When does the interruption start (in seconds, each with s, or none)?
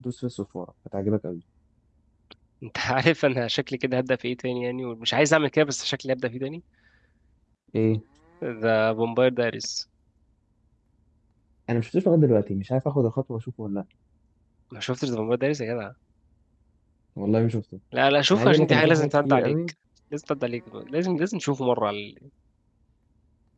18.3 s